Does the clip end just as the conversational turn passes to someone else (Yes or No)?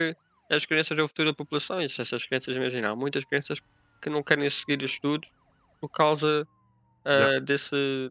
No